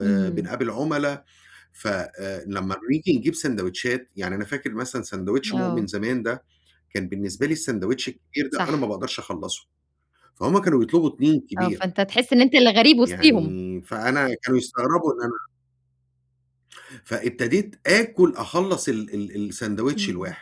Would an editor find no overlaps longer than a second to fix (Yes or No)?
Yes